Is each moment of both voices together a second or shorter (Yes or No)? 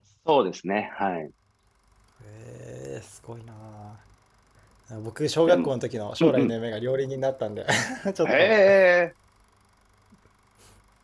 Yes